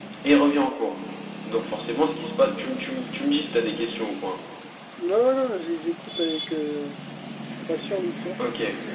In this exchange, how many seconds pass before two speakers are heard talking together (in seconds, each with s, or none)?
none